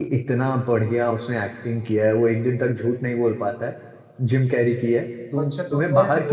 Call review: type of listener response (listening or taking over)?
taking over